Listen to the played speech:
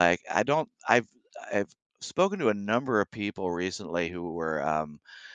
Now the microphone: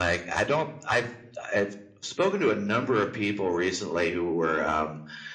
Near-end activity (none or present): none